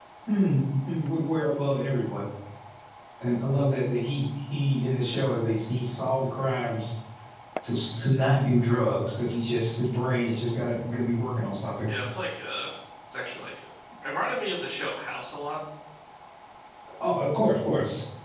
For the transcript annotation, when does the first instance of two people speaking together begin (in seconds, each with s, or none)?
none